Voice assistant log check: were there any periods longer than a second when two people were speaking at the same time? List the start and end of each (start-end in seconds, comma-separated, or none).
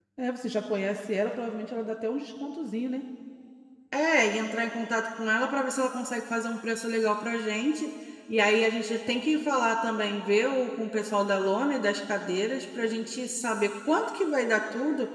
none